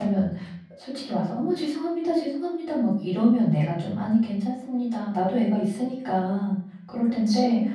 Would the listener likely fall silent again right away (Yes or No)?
Yes